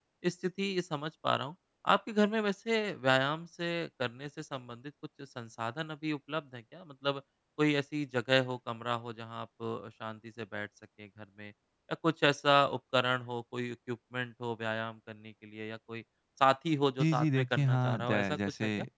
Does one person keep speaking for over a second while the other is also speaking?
Yes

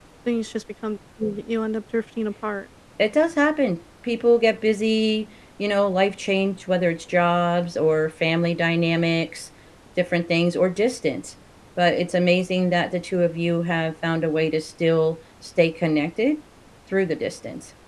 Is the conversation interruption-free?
Yes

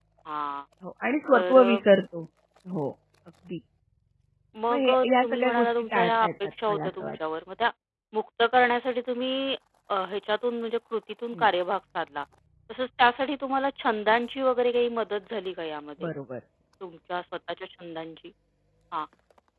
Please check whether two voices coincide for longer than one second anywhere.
Yes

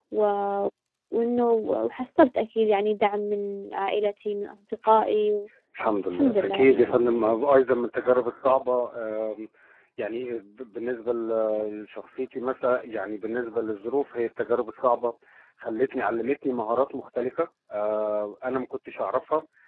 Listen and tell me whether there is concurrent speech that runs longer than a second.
Yes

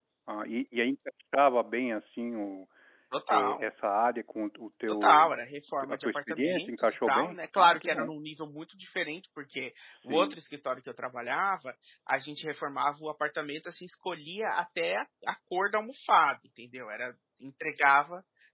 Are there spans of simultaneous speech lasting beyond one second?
Yes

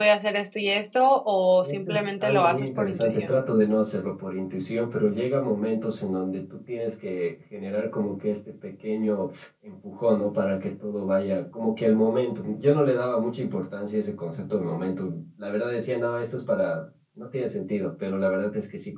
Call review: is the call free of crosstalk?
No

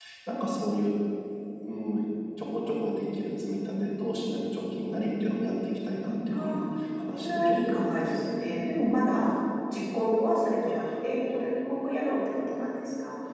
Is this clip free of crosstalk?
No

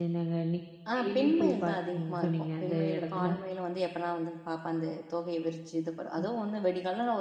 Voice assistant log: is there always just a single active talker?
No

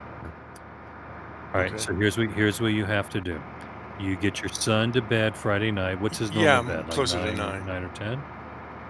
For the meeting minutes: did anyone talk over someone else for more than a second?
Yes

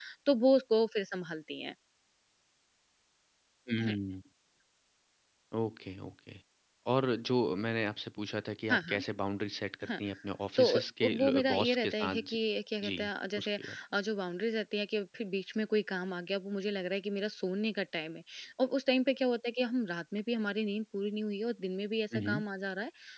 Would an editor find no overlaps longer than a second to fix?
No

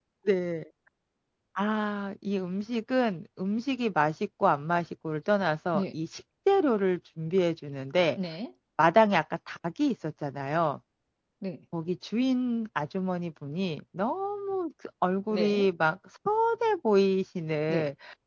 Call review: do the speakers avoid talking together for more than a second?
Yes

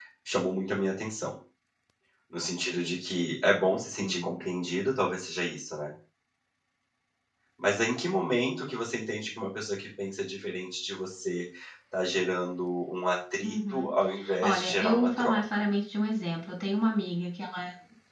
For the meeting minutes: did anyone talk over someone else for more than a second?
Yes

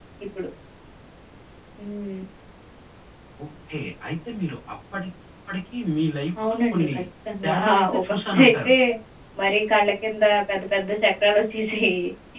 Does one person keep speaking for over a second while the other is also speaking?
Yes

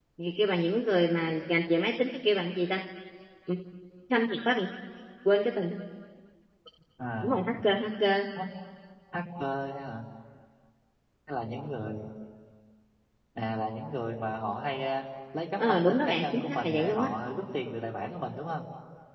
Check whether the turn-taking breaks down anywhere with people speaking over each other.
Yes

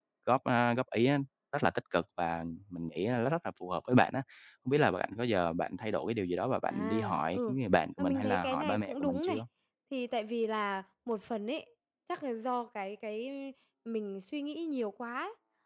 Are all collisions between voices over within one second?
No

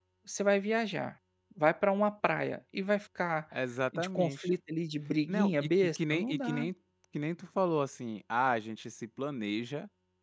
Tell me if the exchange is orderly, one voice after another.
No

